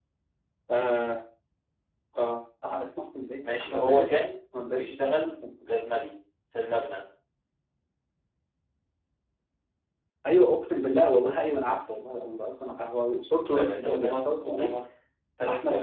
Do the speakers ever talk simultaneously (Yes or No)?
Yes